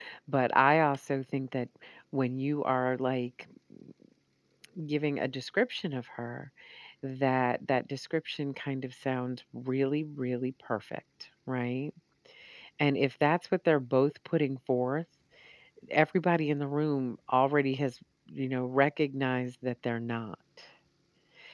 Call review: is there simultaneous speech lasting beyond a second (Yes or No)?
No